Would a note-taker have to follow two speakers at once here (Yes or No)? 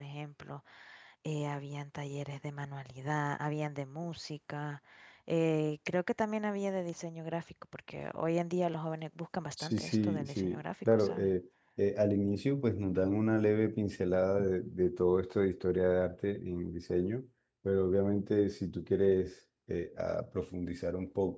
Yes